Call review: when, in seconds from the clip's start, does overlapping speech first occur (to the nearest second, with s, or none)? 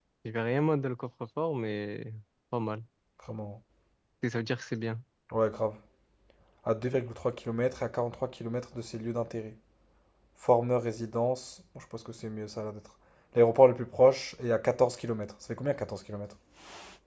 none